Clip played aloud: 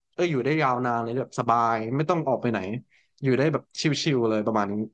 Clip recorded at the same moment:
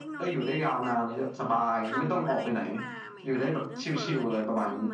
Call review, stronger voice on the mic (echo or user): echo